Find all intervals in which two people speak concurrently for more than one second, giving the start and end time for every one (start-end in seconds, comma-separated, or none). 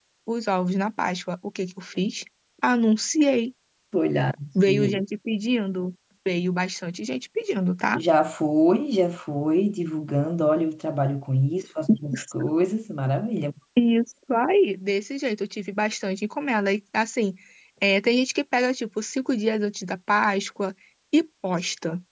none